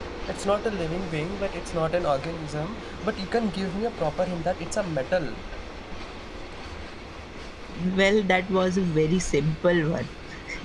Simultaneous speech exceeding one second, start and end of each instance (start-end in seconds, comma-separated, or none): none